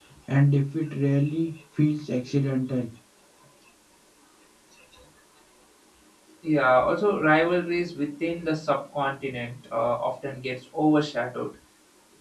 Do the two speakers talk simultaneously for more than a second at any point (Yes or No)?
No